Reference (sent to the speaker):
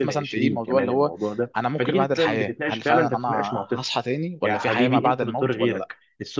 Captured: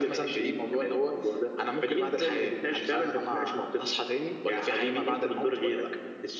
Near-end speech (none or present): none